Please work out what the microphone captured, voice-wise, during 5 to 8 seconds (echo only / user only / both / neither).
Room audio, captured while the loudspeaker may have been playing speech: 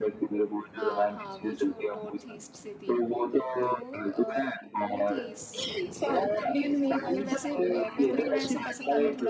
both